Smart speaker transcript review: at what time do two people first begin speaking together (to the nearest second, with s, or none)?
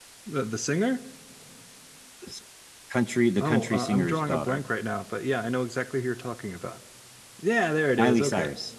3 s